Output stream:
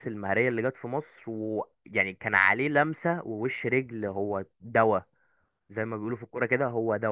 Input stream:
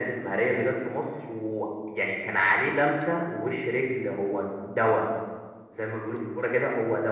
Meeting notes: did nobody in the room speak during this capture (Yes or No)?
Yes